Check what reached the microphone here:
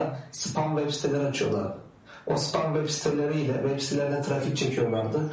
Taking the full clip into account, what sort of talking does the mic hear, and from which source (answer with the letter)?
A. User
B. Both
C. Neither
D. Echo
D